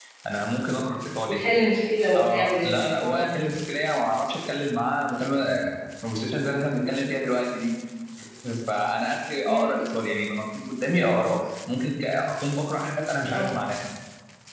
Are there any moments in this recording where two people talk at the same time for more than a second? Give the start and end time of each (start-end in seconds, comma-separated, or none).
2.2-3.4